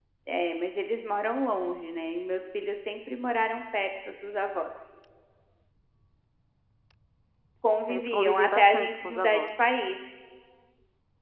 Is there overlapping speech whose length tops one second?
Yes, from 7.9 s

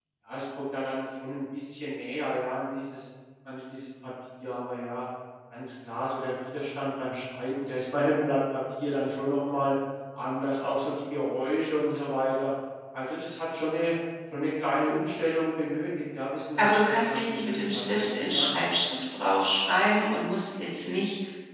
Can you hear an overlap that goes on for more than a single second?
Yes, from 16.5 s

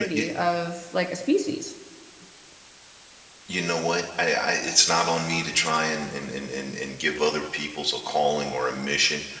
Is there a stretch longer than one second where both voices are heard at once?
No

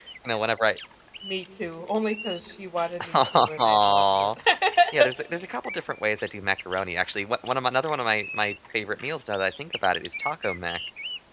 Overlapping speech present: Yes, from 3.1 s

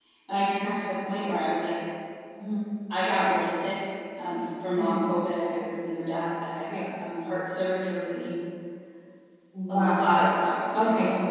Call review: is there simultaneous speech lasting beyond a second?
No

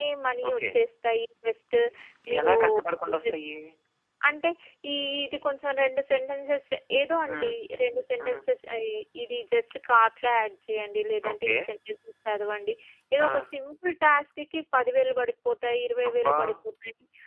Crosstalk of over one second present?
No

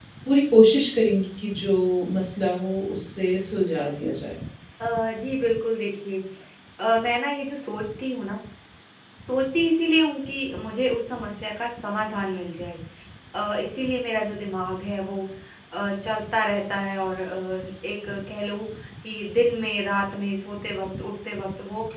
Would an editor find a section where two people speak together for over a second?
No

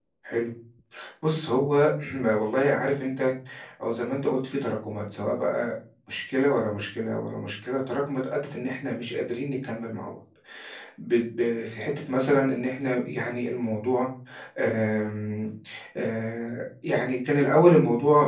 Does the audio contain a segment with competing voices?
No

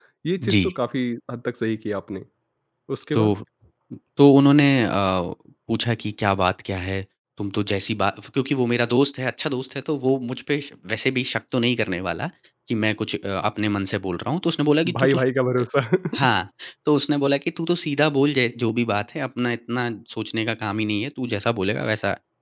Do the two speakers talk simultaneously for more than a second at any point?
No

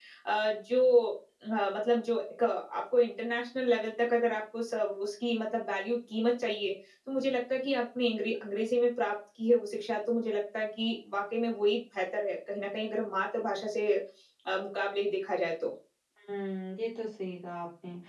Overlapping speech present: No

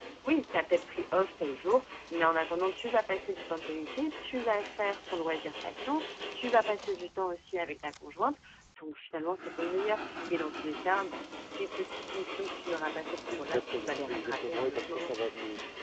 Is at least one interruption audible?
Yes, from 13.3 s

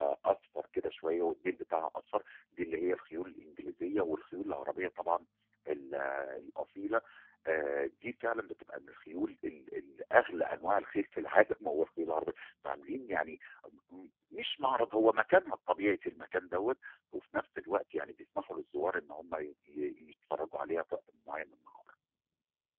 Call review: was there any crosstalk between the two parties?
No

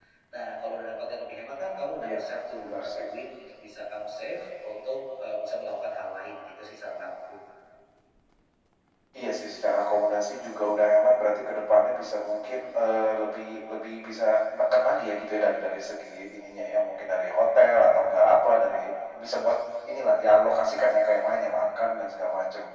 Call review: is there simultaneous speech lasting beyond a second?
No

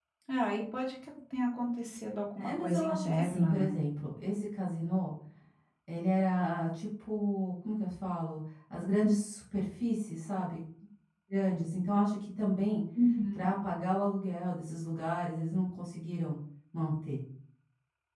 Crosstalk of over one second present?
Yes, from 2.4 s

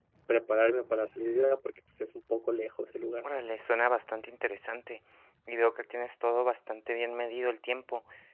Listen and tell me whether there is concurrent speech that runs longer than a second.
No

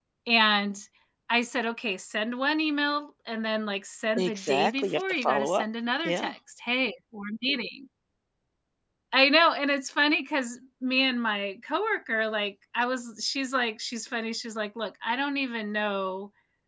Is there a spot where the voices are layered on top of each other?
Yes, from 4.2 s

